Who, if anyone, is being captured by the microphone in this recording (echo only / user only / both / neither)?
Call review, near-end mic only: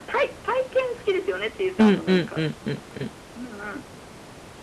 both